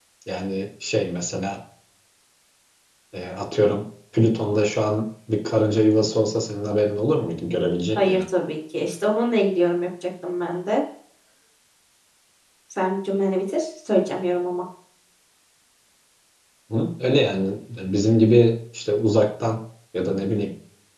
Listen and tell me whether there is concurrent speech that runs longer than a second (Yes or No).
No